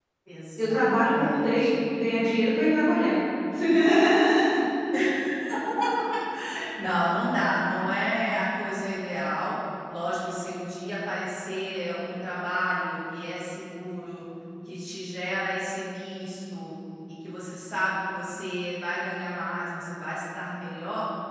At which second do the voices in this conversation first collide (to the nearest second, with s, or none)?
1 s